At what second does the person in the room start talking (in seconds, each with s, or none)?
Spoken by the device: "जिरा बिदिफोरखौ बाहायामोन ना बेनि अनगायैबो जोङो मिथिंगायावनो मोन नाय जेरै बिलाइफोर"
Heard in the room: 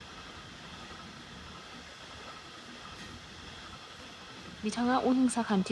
4.6 s